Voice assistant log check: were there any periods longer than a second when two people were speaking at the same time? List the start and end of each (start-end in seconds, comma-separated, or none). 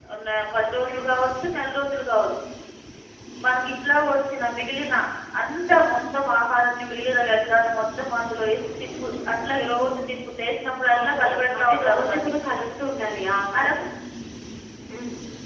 11.0-12.3